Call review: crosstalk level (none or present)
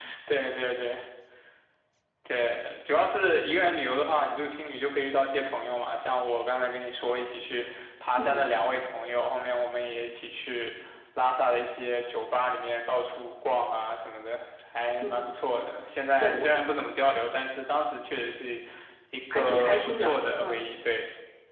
present